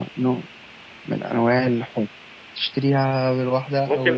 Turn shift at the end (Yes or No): Yes